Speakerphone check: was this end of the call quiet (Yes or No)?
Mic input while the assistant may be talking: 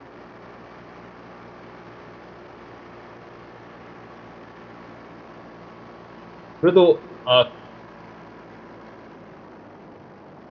No